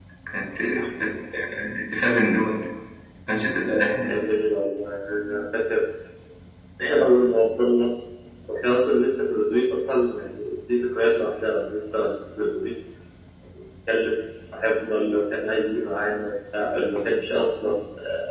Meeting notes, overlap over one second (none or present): none